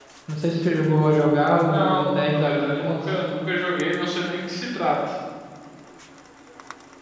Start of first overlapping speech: 2 s

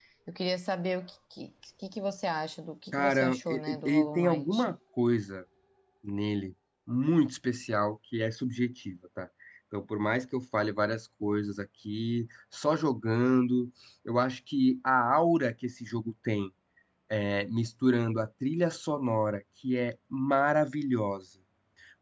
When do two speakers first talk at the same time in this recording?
3 s

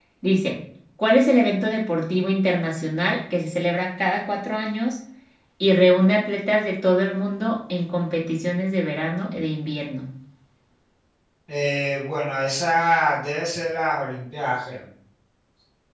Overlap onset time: none

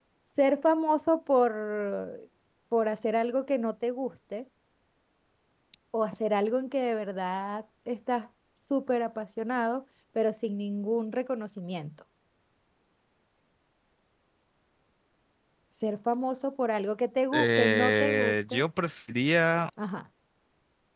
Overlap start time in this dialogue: 17 s

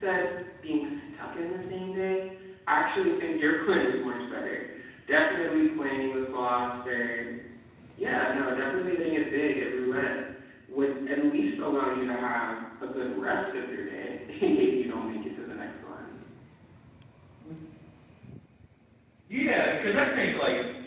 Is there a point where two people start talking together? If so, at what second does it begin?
none

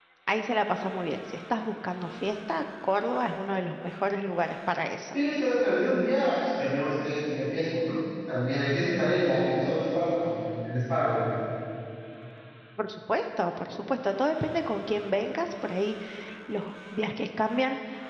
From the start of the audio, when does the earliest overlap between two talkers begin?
none

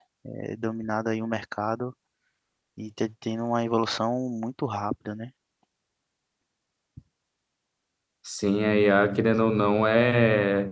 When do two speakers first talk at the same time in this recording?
none

